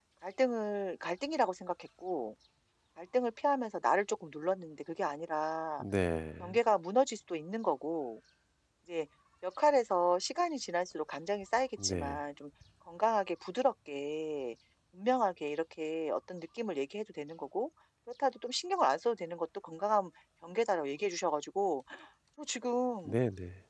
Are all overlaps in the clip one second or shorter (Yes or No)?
Yes